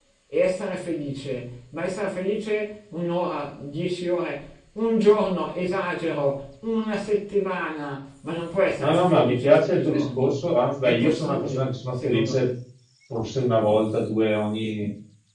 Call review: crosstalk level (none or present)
present